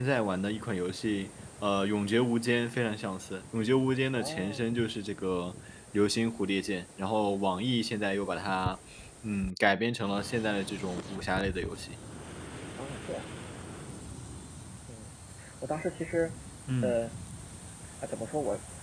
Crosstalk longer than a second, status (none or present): none